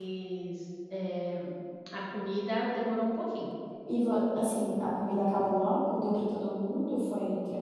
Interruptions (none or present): none